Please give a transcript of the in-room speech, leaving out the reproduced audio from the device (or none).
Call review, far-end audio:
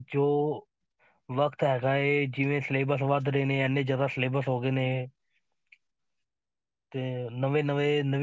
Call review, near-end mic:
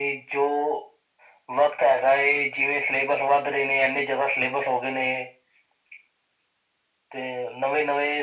none